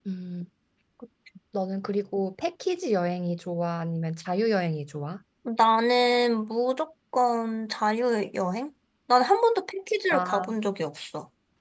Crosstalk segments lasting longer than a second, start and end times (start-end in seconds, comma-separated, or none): none